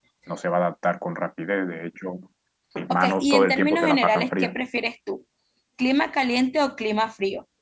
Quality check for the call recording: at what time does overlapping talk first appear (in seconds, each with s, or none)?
2.9 s